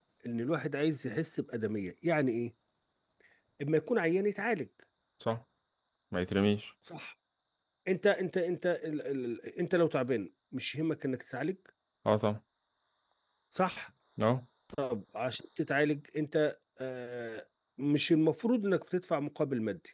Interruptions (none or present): none